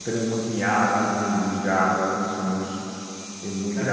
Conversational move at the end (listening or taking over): taking over